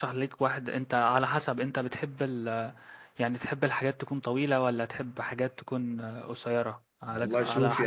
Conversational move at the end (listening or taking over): taking over